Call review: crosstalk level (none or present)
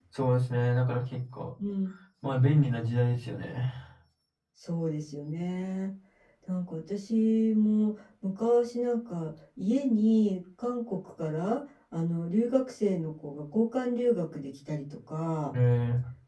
none